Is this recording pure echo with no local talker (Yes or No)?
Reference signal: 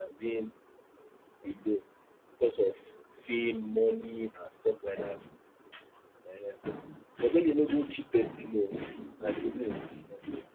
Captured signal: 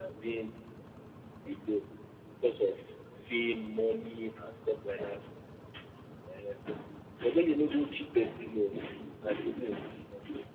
Yes